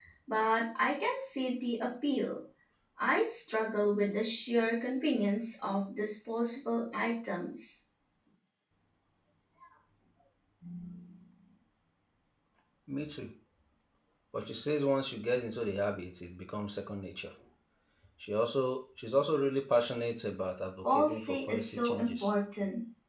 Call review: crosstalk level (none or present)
present